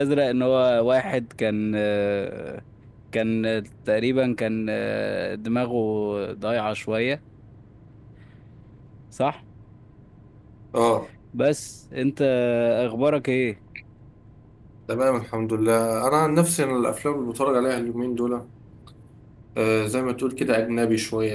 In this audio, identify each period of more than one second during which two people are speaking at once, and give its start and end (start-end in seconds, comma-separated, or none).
none